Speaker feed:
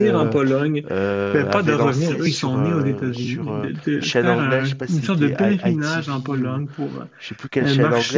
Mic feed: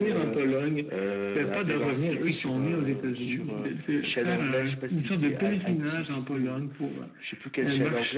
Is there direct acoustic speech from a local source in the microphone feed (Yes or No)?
No